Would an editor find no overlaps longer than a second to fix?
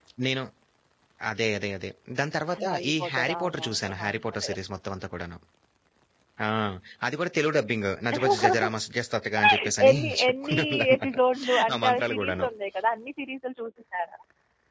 No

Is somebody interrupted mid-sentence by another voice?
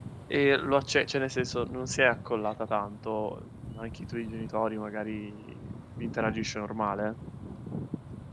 No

